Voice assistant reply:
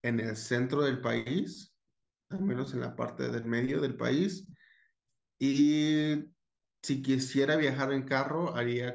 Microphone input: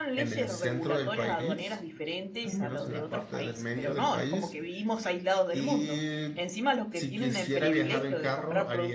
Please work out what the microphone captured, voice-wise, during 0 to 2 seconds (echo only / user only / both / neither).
both